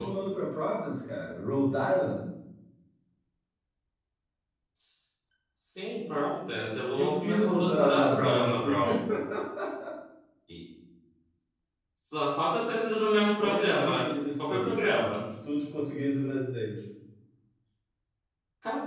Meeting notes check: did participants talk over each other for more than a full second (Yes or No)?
Yes